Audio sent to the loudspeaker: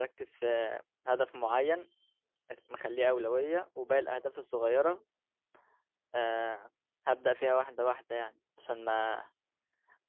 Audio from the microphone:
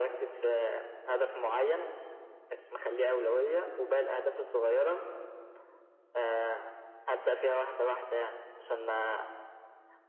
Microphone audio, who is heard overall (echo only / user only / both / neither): echo only